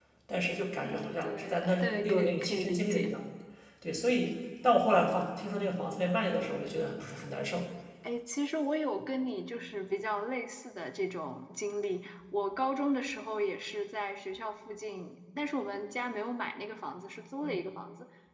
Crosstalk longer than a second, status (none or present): present